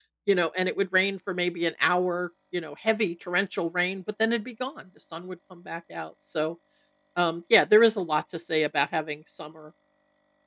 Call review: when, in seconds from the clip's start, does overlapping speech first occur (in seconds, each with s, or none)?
none